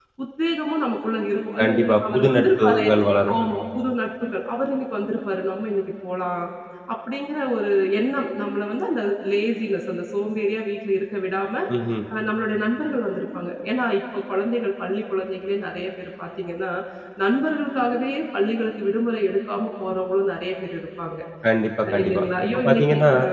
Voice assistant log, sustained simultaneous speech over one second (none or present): present